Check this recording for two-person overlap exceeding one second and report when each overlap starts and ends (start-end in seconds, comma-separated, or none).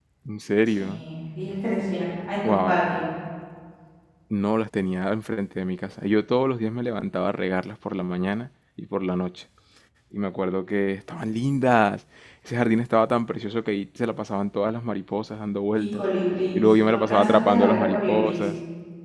16.6-18.3